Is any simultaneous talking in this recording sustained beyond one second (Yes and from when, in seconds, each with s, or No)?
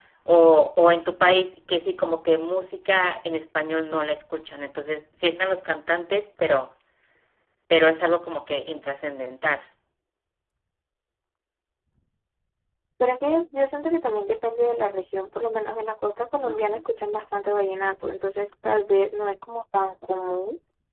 No